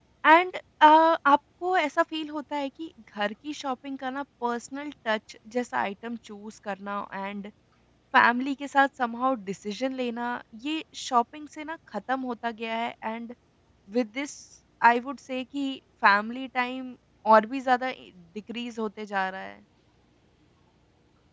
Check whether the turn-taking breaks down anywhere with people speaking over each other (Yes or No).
No